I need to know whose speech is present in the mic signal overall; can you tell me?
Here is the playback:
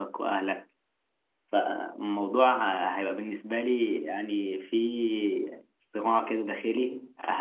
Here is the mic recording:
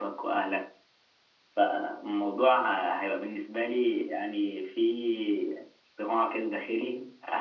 echo only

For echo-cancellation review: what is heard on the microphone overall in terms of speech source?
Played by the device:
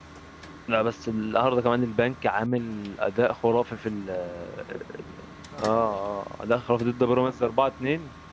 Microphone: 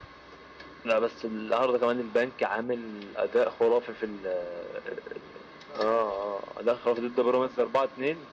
echo only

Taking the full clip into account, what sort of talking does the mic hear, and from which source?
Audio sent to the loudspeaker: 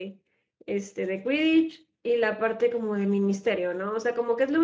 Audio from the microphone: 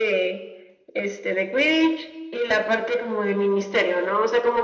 echo only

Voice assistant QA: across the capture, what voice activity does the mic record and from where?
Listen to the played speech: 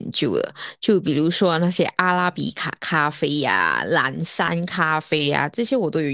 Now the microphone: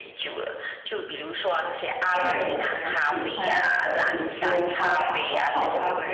both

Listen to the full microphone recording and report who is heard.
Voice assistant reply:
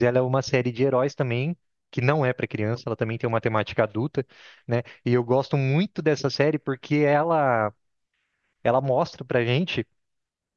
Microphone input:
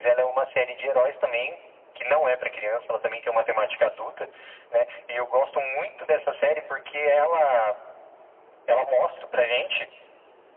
echo only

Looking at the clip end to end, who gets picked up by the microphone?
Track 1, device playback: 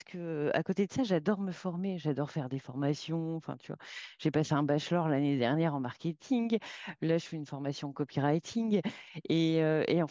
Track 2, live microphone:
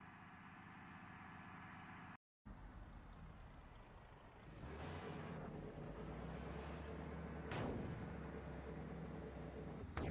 neither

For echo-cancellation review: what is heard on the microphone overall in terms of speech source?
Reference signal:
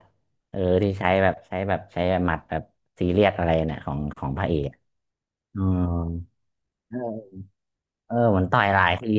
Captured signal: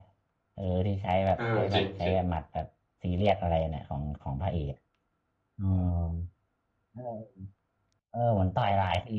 both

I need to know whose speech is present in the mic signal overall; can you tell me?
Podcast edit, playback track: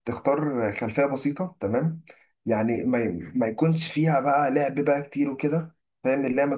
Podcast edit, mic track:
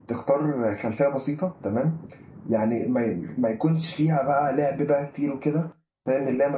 echo only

